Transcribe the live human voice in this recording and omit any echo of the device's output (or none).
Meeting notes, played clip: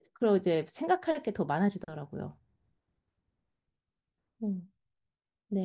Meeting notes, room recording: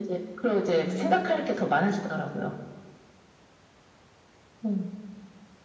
음, 그러시군요.